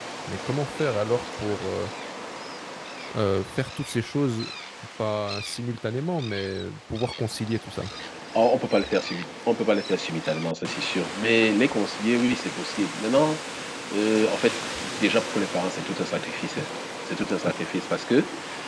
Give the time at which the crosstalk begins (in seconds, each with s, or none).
none